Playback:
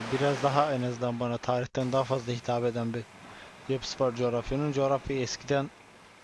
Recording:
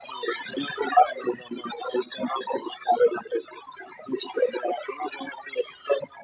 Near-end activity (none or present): none